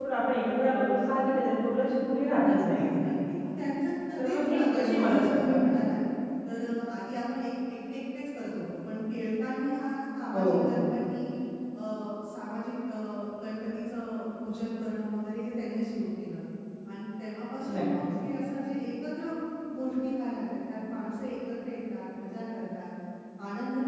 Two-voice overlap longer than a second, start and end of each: 4.2-5.6

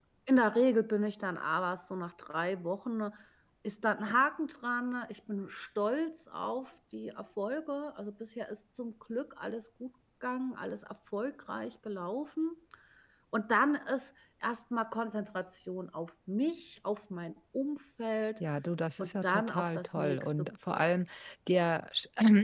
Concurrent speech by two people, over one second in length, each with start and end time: 19.0-20.9

